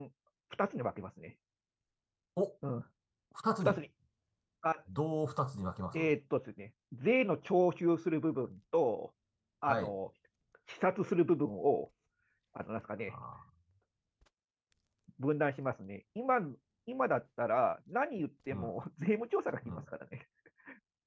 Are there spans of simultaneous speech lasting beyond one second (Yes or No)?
No